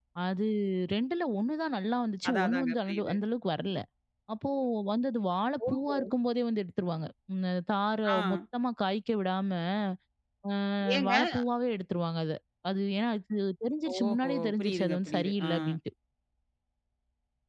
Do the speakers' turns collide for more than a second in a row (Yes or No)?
Yes